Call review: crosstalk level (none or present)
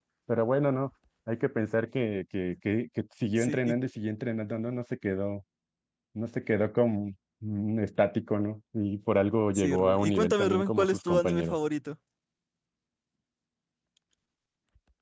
present